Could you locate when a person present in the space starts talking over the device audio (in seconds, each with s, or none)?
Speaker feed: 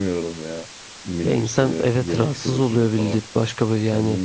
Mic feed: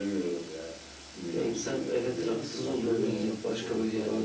2.6 s